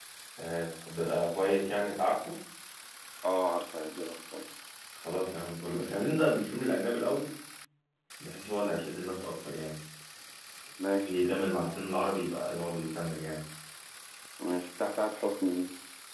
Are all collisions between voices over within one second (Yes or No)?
Yes